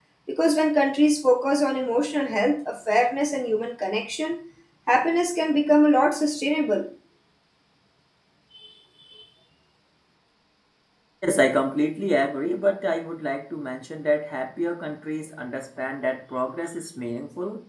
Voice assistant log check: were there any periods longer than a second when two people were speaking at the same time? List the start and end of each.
none

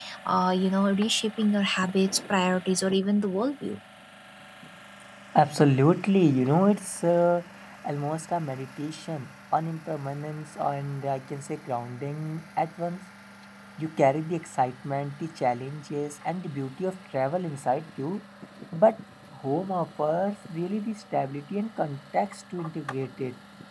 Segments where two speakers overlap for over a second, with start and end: none

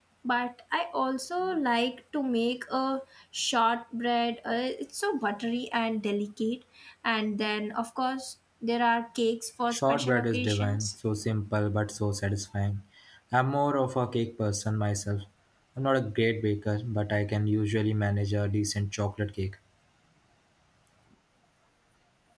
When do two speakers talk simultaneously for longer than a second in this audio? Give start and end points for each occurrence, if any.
9.7-10.9

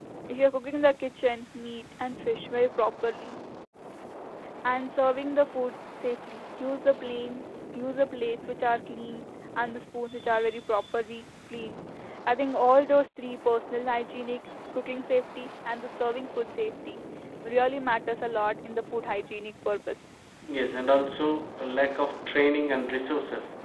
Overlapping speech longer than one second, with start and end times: none

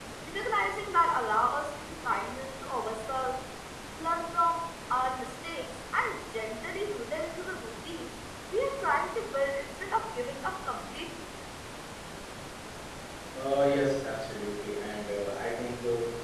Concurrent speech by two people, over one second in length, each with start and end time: none

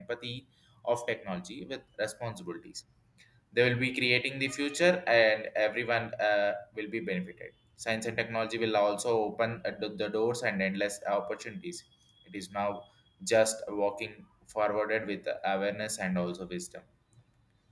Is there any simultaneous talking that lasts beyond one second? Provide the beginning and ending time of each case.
none

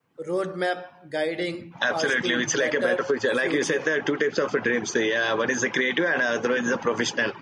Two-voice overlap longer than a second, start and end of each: 1.9-3.9

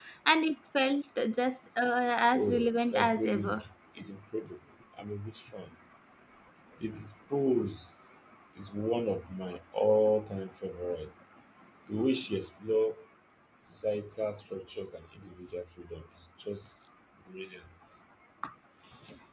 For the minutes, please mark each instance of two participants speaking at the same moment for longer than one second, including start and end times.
2.4-3.6

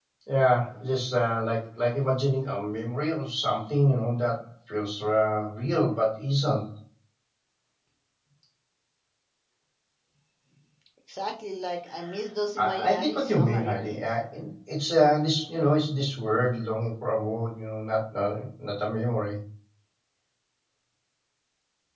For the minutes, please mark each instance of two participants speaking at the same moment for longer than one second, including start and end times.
12.6-14.0

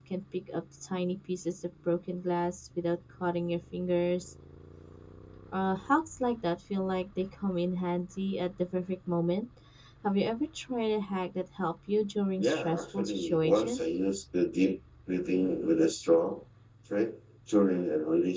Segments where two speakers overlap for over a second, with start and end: 12.4-13.8

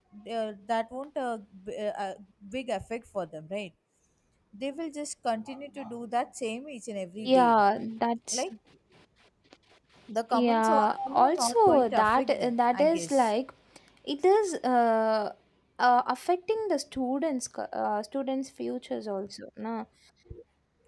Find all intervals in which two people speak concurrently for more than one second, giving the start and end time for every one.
10.3-13.3

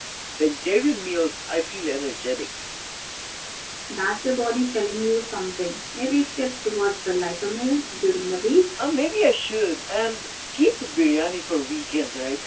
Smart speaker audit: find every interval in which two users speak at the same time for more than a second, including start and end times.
none

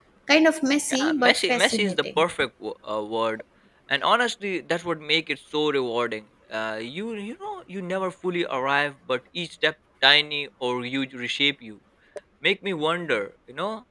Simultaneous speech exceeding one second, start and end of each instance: 0.9-2.2

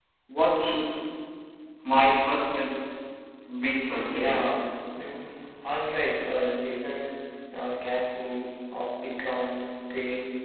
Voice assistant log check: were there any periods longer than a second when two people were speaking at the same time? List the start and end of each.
none

